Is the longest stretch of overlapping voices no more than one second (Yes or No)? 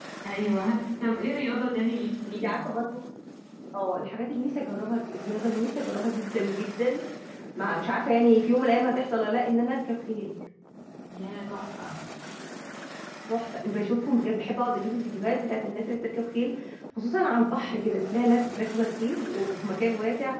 Yes